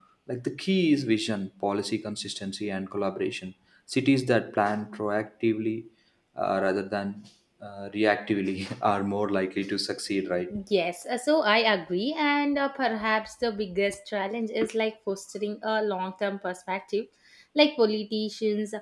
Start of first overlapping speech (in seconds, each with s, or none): none